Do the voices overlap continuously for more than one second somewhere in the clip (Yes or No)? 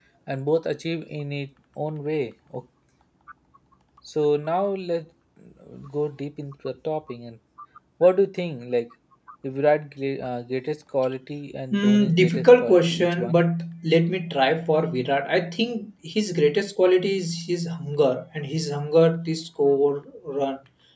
Yes